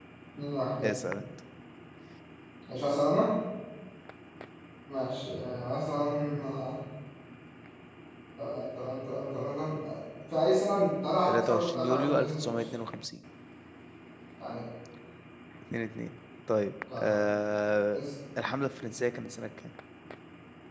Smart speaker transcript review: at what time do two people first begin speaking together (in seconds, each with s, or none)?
11.3 s